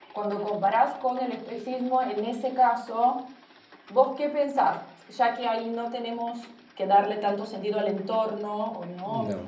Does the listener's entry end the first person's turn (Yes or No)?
No